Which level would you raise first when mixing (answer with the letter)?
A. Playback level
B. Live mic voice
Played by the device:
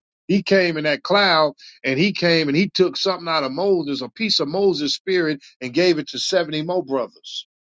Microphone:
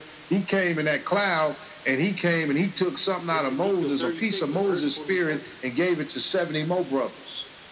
B